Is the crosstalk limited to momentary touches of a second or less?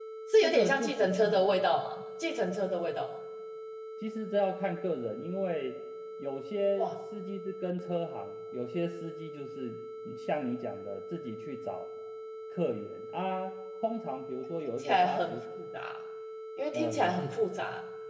No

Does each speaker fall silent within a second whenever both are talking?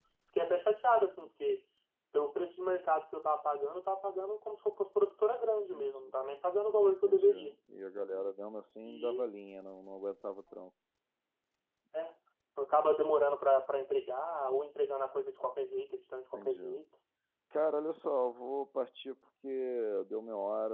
Yes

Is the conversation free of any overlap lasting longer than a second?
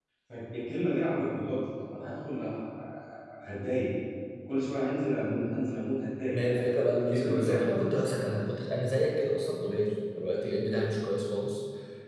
No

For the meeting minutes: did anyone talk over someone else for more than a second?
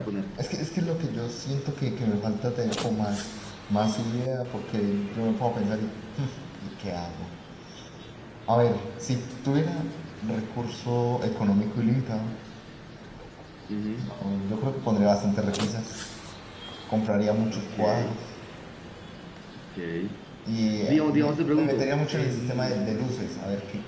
Yes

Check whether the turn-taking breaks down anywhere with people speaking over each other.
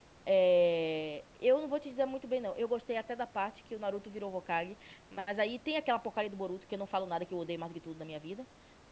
No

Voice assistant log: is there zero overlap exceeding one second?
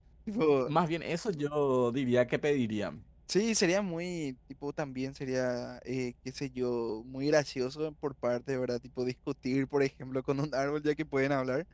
Yes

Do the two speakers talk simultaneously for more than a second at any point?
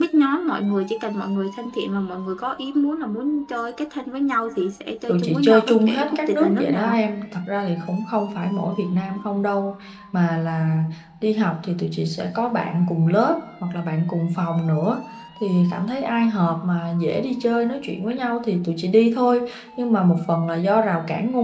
Yes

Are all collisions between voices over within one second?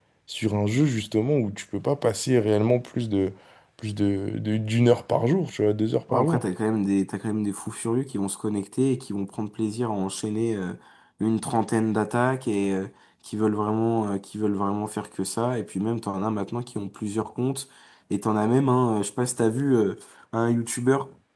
Yes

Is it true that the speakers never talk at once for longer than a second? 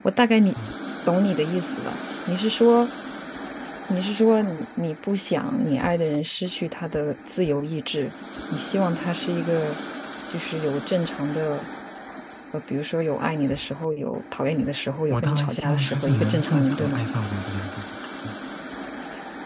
No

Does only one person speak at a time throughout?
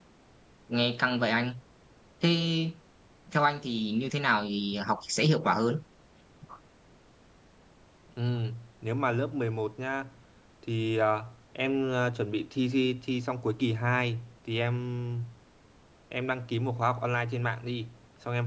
Yes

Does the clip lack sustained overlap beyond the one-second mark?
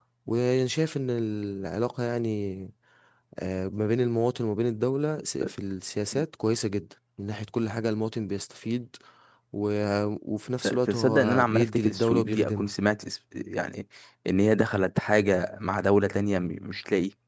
No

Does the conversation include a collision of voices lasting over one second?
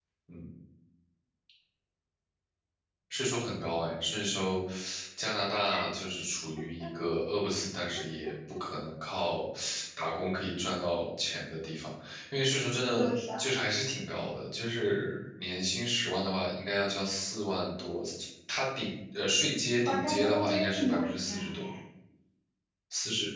Yes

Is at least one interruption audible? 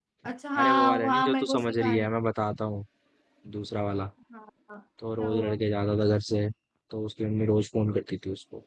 Yes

